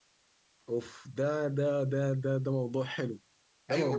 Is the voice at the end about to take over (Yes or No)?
Yes